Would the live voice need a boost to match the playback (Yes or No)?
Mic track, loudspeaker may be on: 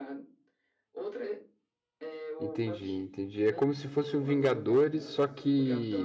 No